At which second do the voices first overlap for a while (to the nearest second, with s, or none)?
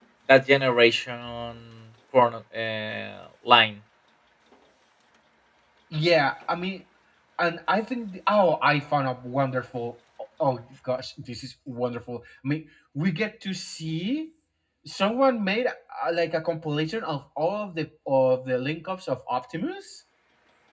none